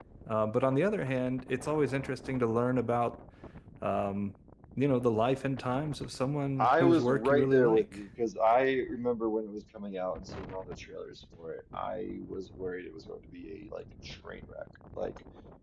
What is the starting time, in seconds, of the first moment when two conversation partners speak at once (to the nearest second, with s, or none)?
7 s